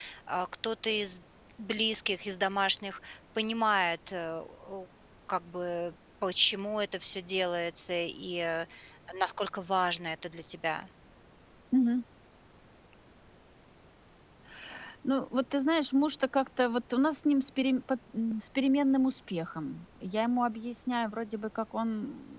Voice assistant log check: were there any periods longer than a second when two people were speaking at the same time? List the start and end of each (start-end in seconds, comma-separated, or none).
none